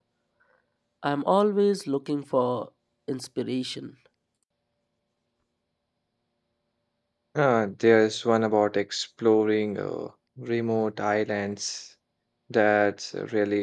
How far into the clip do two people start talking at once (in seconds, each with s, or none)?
none